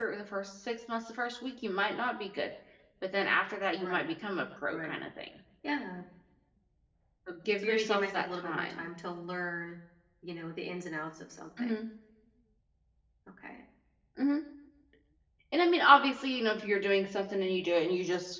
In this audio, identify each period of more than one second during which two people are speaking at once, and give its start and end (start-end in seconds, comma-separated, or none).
7.6-8.9